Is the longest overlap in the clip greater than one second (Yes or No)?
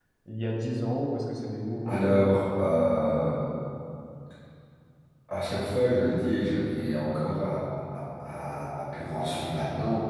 No